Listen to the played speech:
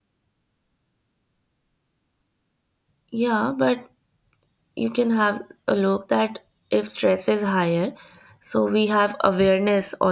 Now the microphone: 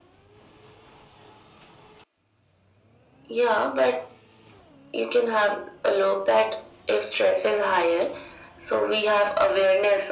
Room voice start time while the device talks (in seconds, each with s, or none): none